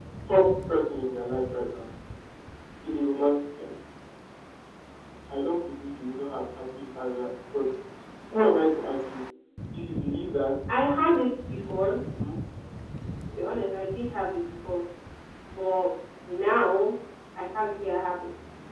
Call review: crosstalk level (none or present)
none